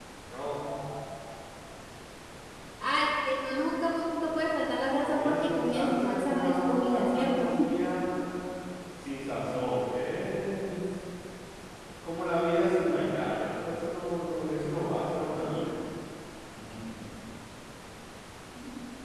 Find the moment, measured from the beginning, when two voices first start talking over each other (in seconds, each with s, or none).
5.0 s